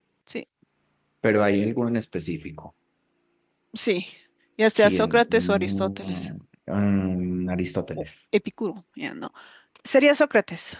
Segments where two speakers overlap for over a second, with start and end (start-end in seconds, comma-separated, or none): 4.8-6.3